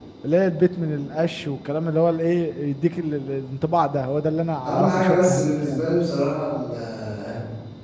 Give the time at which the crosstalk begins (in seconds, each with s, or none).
4.6 s